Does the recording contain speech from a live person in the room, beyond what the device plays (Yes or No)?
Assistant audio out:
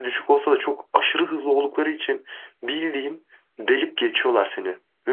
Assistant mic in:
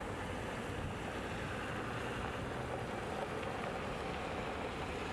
No